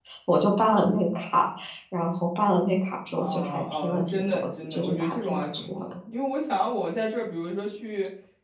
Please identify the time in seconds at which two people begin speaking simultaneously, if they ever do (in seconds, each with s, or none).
3.2 s